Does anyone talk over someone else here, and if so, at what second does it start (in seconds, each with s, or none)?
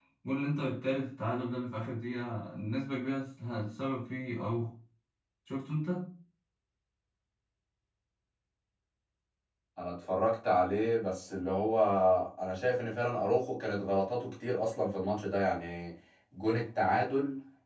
none